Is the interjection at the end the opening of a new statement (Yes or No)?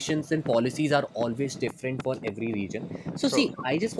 No